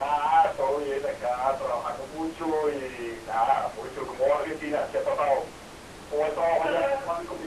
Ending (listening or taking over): taking over